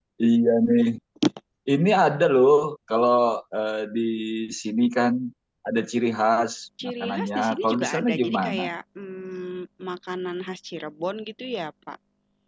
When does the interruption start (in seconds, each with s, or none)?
6.8 s